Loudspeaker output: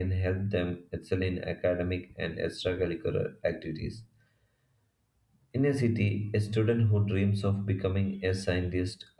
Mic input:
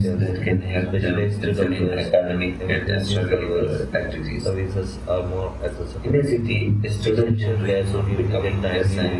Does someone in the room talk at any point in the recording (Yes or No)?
Yes